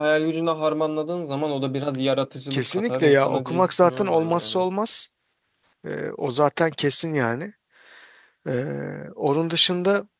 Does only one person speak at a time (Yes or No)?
No